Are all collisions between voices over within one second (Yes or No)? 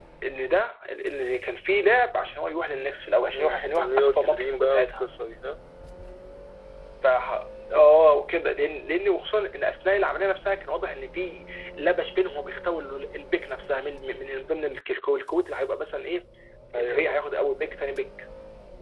No